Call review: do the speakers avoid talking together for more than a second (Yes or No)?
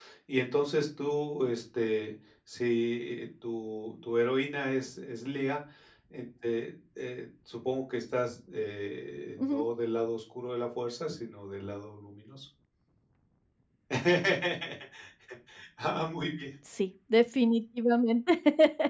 Yes